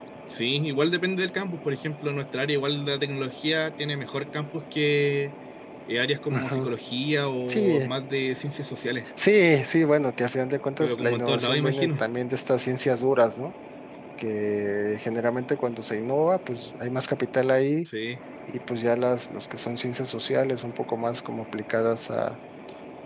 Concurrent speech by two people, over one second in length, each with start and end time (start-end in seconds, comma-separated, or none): 10.8-12.0